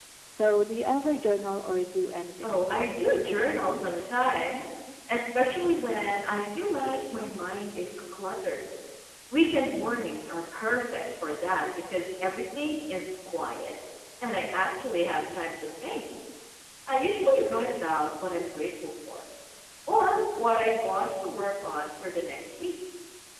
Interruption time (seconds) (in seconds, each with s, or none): 2.4 s